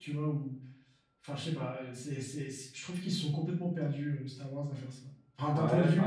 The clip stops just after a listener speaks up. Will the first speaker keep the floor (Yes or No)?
No